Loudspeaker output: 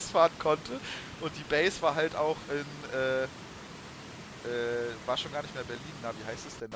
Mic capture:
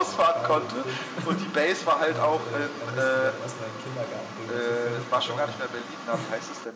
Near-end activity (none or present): present